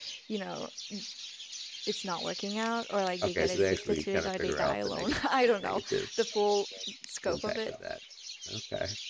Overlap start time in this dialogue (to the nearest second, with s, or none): 3 s